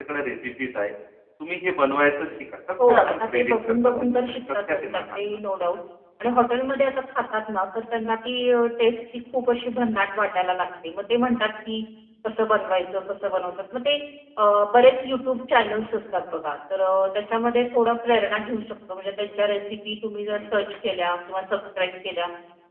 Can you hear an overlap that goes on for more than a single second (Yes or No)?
Yes